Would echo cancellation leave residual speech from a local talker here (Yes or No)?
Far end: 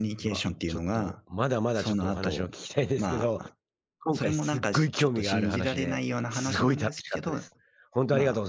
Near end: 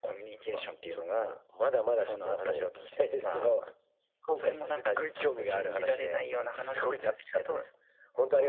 No